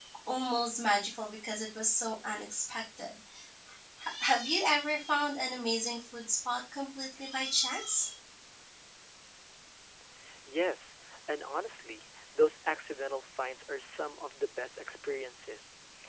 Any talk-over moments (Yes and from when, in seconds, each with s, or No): No